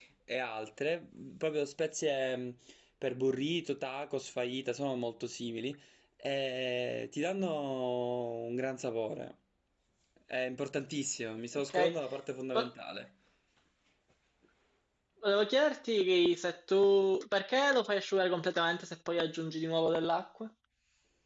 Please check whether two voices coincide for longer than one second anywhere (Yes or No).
No